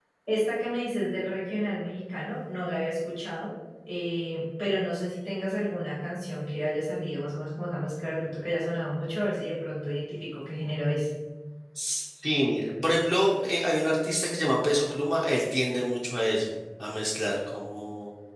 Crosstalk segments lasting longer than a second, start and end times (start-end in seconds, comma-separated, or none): none